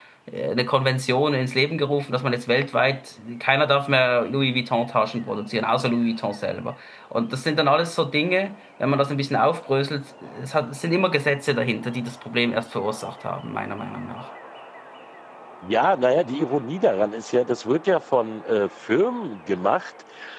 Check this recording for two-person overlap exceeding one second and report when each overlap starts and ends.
none

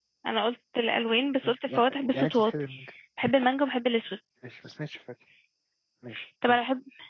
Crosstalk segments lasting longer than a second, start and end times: 1.4-2.7

